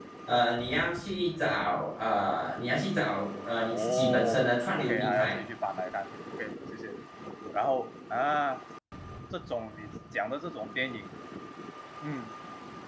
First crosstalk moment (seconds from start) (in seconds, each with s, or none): 3.7 s